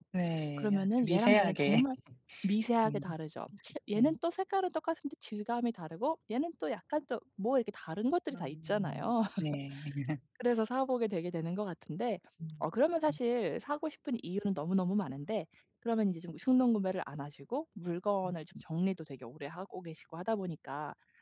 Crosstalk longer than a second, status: present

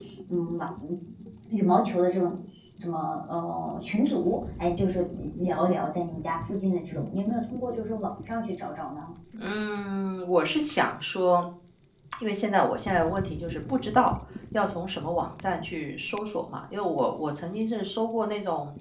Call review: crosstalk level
none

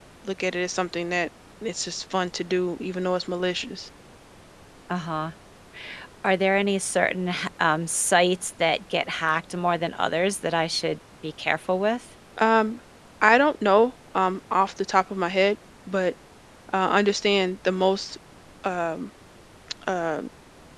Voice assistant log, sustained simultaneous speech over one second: none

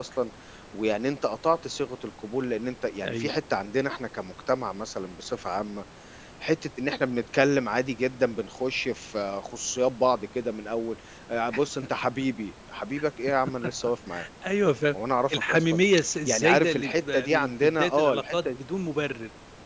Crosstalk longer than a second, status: present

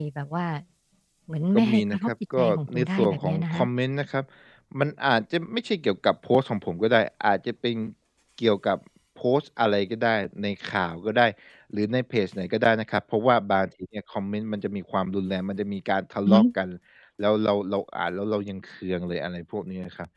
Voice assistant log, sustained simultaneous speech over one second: present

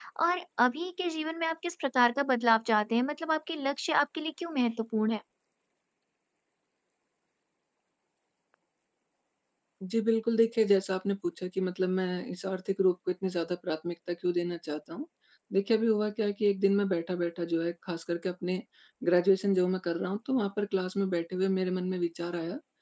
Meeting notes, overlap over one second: none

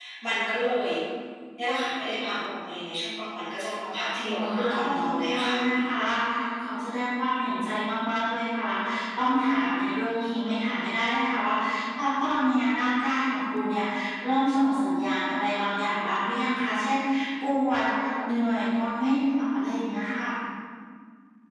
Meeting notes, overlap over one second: present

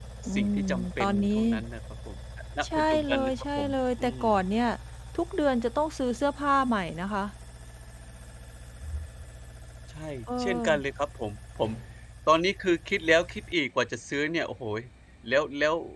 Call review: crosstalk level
present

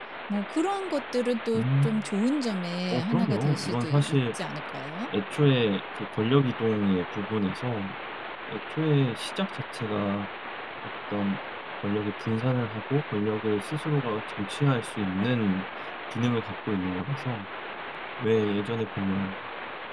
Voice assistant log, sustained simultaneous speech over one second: present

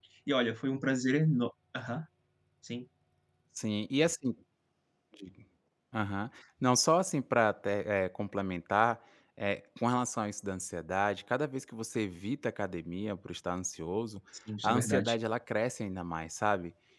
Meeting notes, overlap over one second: none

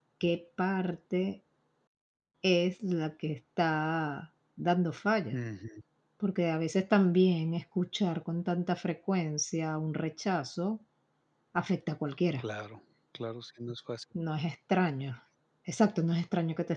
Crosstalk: none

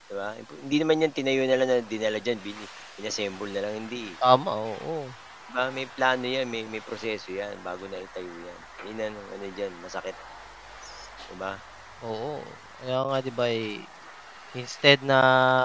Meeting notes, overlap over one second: none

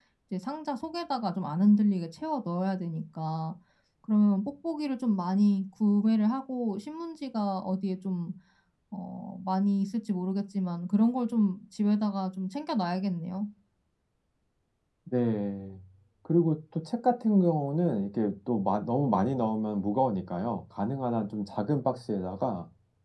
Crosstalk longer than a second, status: none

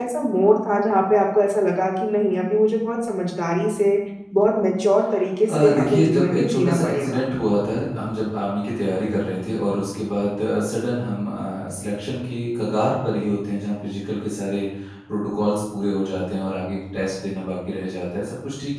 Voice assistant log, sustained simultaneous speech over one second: present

